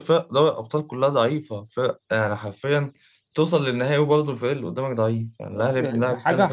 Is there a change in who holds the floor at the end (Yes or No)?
Yes